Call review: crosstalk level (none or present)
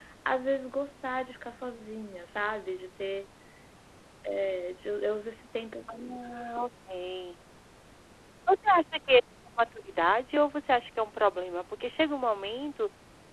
none